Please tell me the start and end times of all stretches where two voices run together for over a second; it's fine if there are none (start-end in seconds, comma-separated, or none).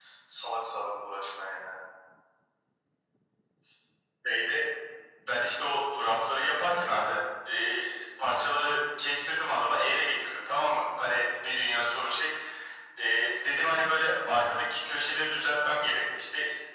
none